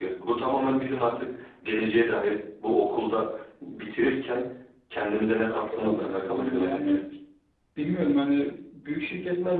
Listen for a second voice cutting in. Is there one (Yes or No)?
Yes